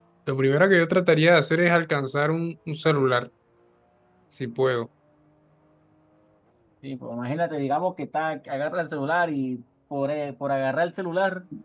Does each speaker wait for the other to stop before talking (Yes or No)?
Yes